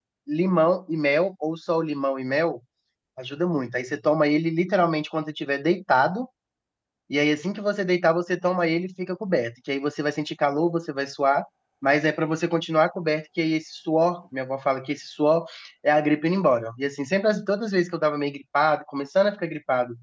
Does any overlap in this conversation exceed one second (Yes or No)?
No